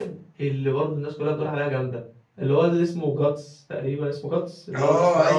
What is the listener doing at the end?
taking over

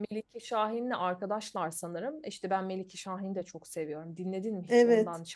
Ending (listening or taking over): taking over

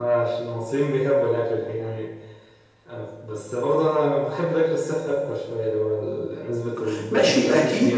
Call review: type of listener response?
taking over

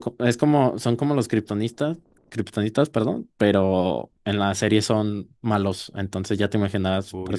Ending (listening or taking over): listening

